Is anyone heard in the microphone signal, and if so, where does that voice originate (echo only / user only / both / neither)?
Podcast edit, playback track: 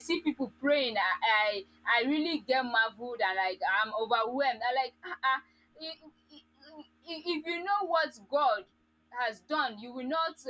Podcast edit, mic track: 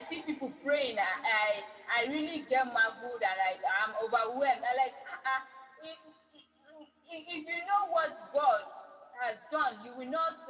echo only